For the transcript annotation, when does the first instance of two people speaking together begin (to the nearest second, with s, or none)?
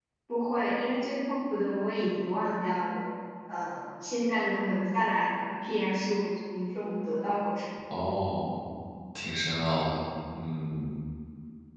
none